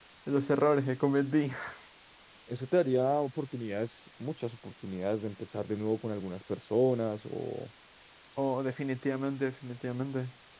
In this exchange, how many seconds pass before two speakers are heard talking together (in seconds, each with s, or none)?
none